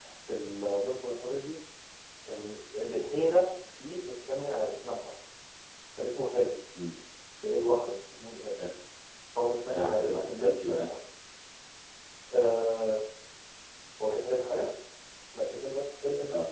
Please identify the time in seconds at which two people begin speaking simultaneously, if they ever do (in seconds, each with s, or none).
9.7 s